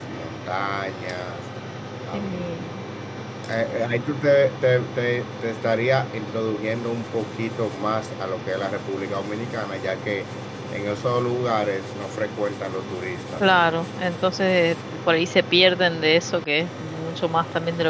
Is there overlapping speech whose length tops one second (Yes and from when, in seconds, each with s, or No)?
No